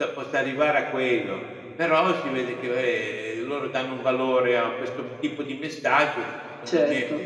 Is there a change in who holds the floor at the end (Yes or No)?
No